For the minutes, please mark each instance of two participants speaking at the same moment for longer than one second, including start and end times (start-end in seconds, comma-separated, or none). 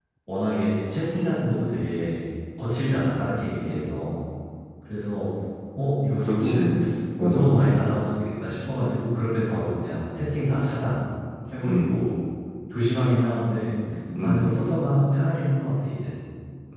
none